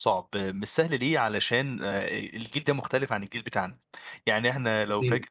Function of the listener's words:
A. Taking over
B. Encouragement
B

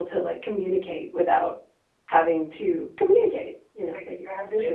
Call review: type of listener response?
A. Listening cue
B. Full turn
B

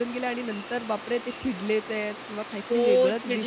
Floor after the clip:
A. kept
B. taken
B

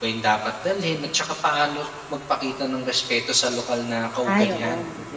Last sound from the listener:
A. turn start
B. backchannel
A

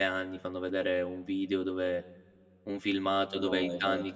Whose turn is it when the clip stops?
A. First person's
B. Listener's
A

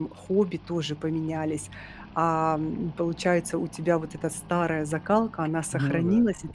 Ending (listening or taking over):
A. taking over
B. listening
B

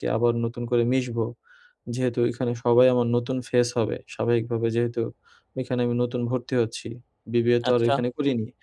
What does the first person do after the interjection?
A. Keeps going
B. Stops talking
A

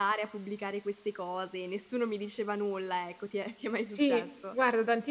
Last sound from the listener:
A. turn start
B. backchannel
A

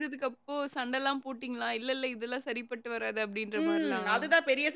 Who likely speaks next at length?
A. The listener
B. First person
A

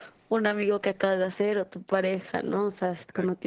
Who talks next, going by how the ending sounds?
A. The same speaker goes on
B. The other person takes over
A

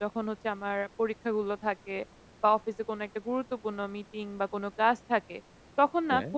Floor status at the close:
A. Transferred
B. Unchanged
B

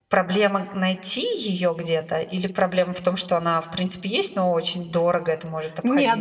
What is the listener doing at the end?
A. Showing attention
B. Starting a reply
B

